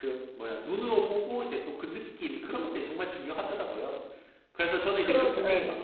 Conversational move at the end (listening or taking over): listening